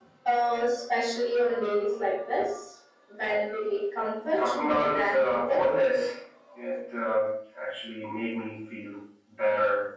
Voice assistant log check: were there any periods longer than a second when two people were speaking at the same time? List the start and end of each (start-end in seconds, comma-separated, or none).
4.3-5.7